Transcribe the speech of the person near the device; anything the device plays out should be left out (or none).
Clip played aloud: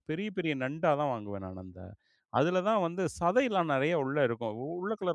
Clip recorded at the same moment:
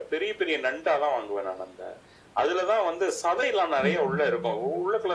ம்ஹ்ம்.